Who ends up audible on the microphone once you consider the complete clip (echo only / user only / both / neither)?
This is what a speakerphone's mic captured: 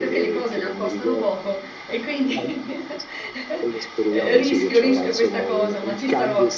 both